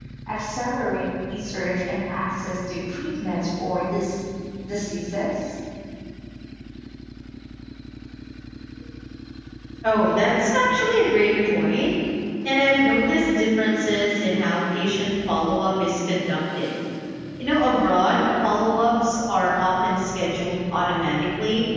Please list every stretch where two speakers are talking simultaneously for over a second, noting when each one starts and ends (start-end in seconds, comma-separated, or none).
none